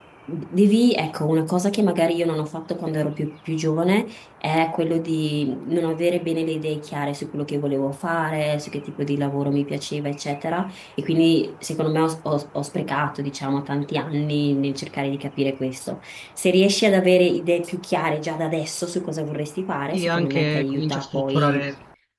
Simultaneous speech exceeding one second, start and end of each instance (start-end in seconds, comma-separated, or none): 19.9-21.7